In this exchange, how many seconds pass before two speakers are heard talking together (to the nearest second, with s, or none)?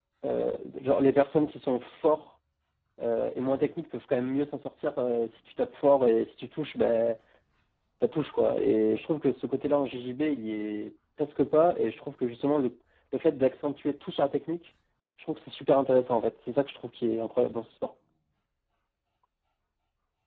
none